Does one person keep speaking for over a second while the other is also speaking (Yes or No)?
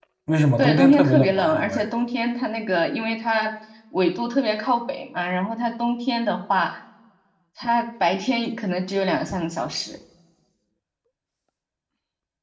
Yes